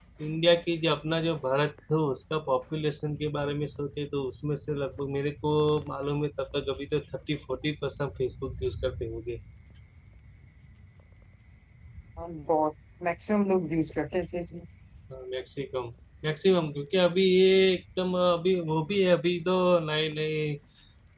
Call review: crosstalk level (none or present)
none